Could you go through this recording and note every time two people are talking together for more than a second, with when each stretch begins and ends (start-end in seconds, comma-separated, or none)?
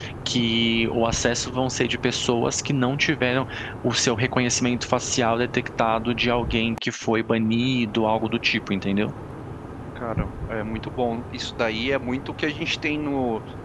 none